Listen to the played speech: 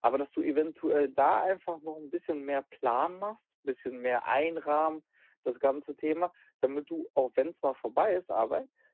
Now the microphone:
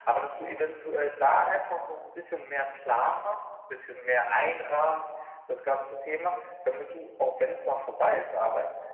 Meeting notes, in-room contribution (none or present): none